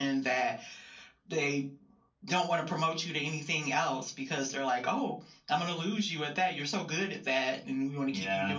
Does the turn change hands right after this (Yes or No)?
No